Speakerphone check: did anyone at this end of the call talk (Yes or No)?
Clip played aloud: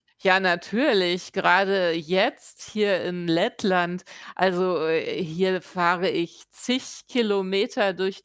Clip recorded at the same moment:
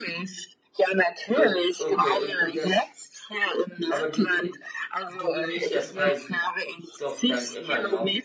Yes